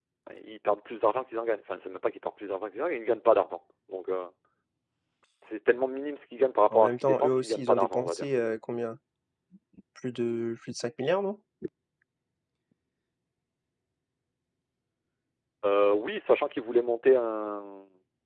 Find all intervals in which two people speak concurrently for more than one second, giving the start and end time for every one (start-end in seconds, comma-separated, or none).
6.7-8.2